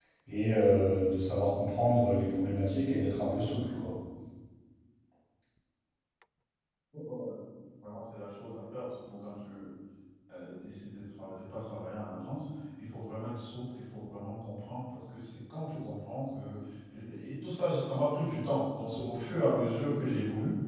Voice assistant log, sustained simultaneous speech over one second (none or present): none